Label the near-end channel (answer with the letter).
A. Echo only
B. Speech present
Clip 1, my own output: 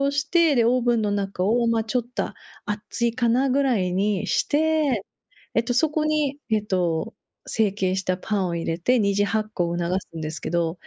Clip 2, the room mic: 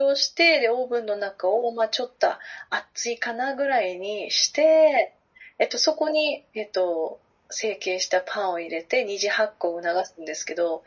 A